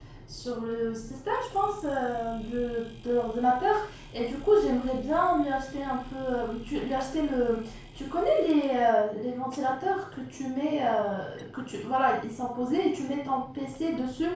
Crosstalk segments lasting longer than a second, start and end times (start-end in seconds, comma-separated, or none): none